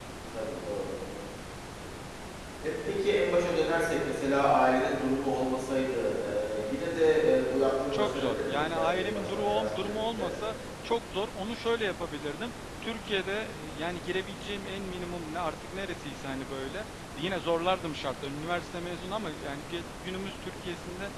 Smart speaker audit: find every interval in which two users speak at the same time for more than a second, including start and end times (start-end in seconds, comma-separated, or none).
7.9-10.3